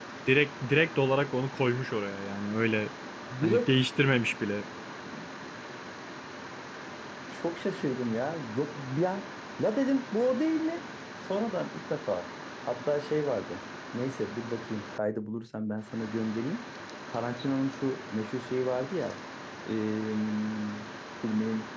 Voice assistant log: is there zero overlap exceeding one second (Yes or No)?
Yes